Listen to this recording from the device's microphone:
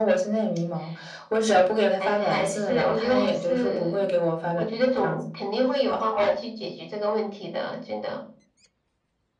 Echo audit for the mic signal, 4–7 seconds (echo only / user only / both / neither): echo only